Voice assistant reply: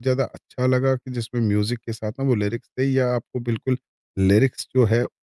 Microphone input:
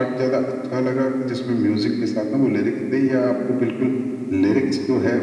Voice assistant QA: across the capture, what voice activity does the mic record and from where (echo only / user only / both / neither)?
echo only